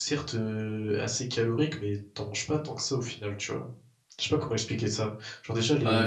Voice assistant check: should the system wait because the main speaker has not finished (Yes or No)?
No